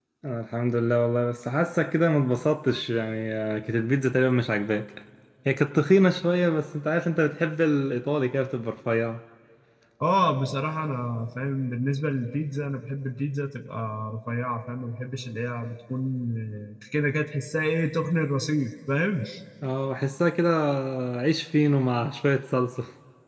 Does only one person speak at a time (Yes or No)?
Yes